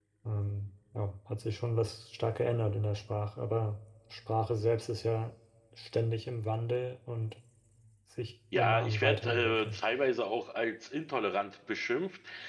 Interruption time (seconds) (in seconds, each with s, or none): 8.6 s